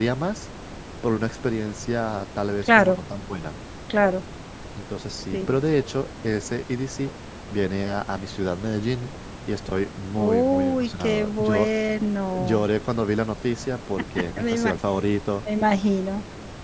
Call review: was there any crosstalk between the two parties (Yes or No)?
Yes